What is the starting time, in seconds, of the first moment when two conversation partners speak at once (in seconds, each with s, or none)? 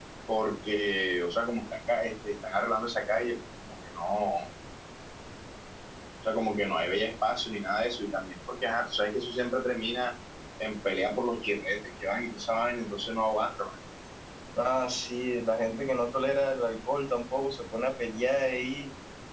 none